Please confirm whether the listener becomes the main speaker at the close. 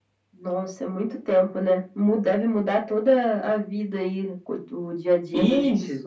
Yes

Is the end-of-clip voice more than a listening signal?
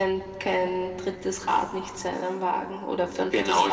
Yes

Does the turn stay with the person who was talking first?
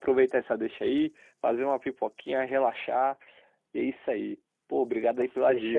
No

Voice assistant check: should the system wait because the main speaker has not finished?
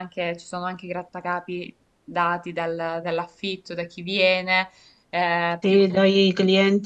No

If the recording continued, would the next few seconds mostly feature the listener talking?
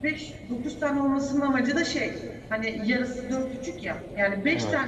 No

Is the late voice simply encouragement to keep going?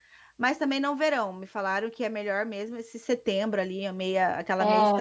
No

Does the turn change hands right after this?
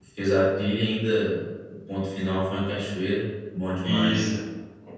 Yes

